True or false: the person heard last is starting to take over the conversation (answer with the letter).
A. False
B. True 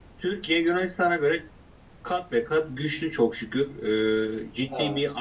A